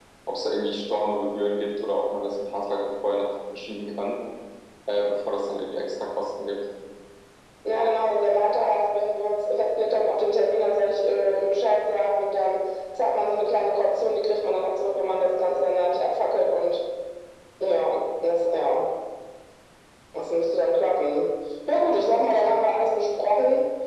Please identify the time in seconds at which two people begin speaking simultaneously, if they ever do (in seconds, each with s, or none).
none